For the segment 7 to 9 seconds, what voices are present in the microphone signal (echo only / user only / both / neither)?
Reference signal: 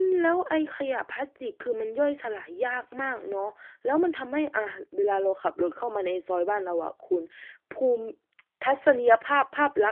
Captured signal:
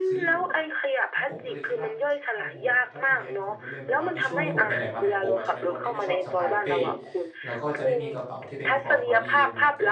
both